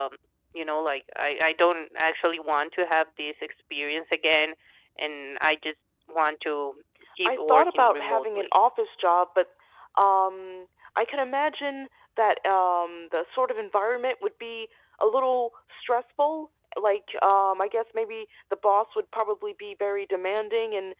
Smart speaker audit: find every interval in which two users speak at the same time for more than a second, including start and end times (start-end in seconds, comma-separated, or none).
7.2-8.5